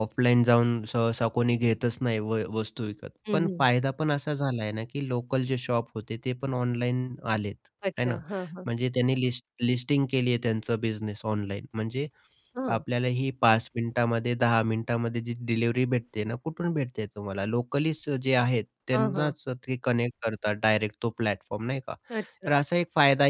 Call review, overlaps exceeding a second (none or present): none